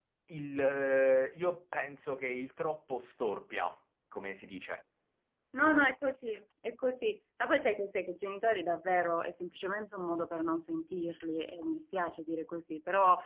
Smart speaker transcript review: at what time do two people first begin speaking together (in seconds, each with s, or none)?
none